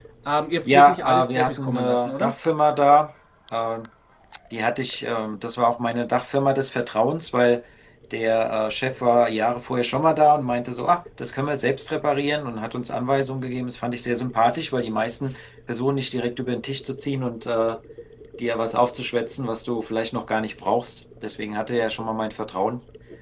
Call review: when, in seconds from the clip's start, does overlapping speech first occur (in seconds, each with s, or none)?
0.6 s